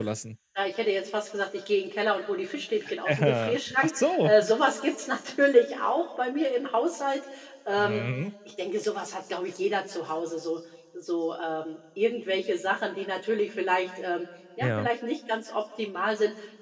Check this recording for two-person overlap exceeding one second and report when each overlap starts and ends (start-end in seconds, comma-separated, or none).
3.0-4.3